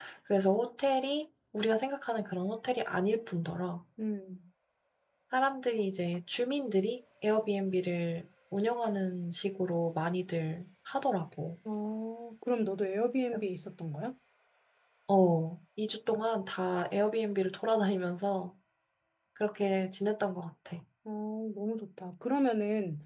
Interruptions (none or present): none